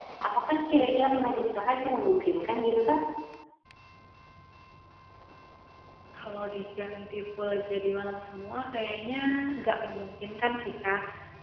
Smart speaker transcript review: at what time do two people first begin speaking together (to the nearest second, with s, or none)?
none